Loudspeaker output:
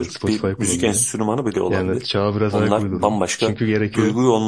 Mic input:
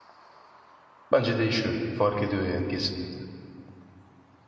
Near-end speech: present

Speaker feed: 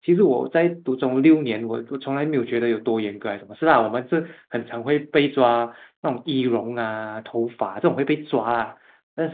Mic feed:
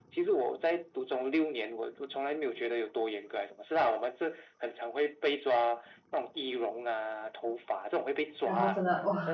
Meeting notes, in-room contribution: present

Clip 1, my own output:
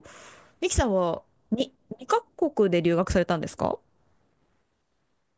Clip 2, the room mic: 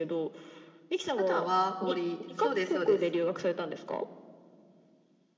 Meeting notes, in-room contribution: present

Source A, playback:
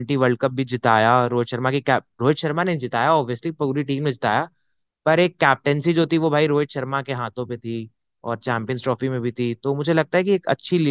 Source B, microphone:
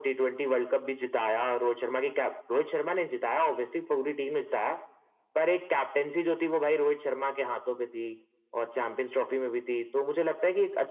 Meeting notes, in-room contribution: none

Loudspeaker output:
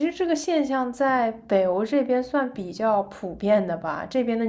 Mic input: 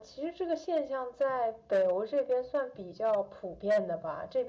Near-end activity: none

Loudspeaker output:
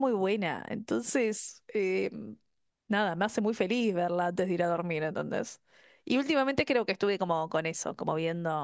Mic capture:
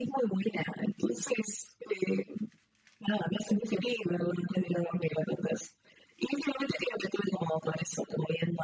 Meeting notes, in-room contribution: none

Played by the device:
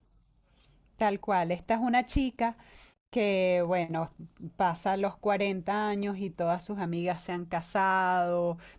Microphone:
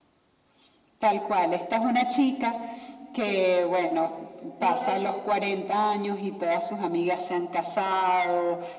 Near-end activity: present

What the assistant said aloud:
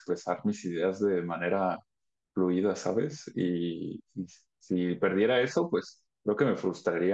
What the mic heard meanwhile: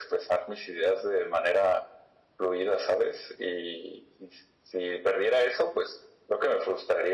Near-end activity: none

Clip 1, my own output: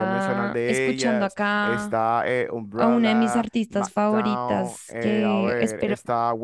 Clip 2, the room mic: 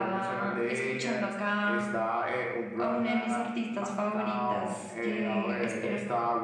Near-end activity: none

